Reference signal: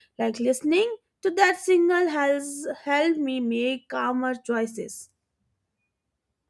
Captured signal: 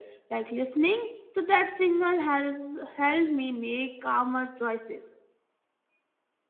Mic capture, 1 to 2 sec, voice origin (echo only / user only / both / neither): echo only